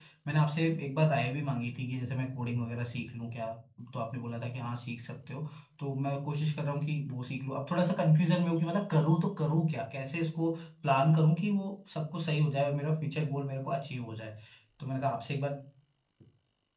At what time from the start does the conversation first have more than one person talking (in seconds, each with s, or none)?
none